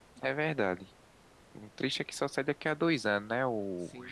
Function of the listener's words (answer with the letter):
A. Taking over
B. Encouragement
A